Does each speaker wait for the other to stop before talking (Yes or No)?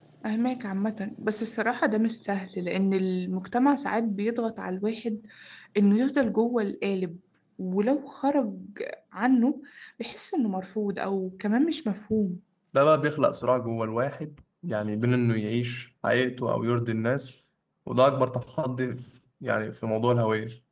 Yes